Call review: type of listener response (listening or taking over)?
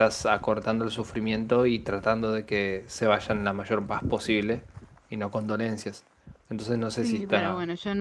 taking over